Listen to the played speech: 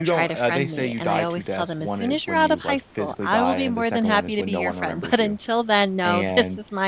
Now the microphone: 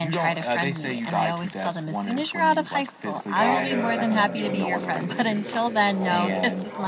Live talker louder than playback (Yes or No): No